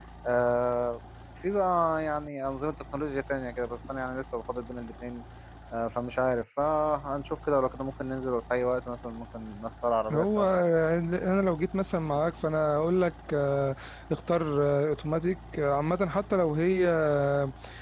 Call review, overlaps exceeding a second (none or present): none